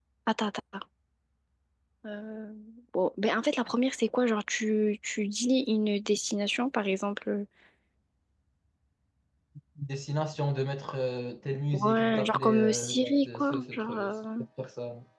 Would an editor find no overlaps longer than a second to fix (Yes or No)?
No